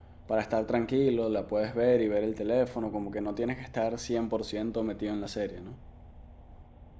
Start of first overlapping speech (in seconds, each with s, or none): none